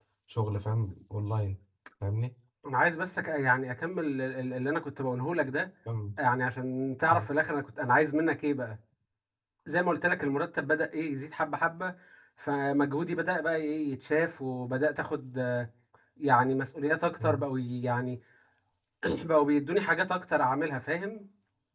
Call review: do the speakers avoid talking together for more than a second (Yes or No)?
Yes